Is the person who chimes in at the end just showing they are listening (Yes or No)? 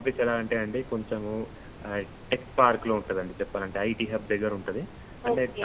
Yes